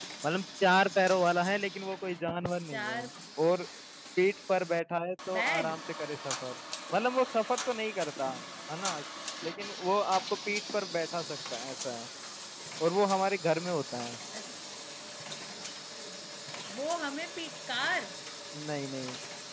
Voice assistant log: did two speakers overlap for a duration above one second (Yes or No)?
No